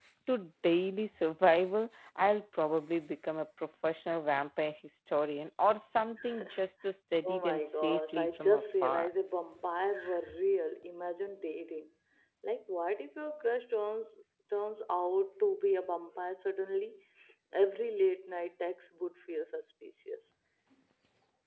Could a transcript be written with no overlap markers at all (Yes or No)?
No